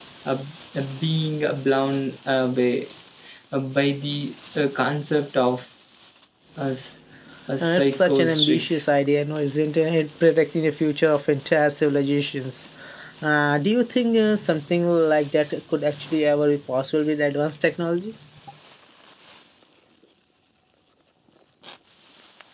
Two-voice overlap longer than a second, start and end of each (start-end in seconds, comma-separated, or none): 7.6-8.8